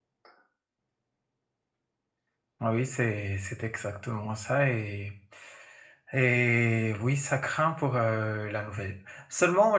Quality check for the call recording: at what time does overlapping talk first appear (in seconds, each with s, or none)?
none